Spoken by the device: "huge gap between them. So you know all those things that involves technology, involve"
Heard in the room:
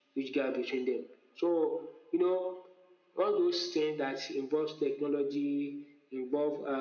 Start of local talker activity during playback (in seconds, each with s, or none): none